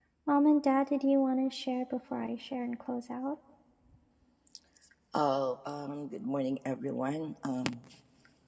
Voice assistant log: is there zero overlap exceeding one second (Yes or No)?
Yes